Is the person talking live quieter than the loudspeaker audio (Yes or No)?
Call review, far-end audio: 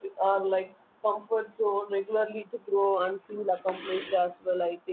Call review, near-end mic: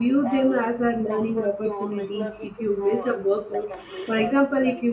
No